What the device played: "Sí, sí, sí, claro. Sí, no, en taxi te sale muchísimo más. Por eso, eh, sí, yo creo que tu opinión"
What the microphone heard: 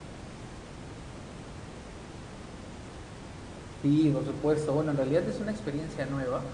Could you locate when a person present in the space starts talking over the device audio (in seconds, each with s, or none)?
3.8 s